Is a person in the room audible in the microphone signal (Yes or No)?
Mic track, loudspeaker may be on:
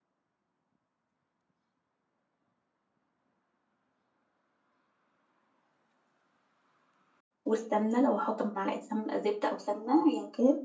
Yes